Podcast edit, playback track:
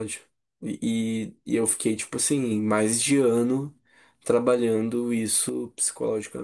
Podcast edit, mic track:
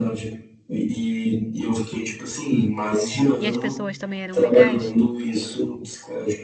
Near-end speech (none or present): present